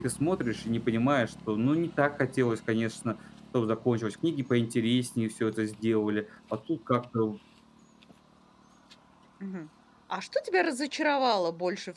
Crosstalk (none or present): none